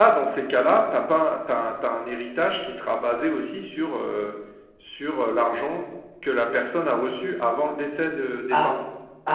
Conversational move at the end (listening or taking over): taking over